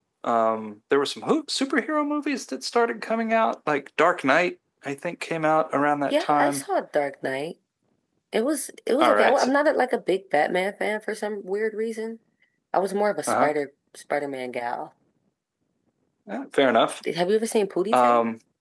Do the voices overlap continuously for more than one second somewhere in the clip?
No

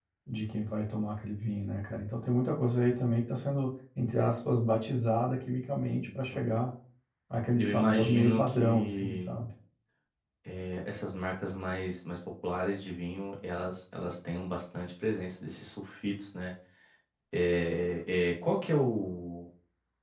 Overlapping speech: Yes, from 7.6 s

